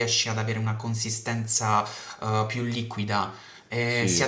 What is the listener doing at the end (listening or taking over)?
taking over